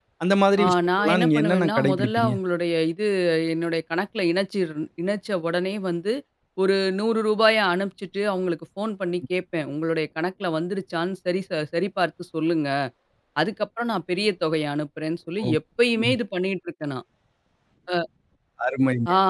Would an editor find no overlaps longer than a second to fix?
No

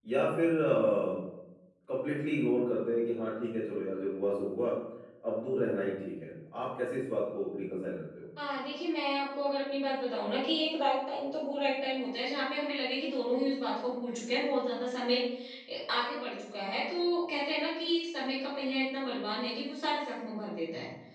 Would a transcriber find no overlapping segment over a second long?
Yes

